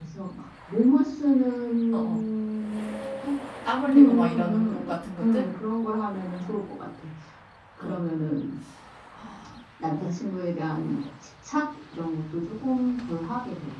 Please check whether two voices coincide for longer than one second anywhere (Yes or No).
Yes